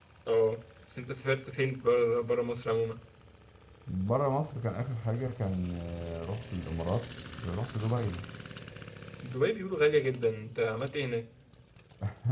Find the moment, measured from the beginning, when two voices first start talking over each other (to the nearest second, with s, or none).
none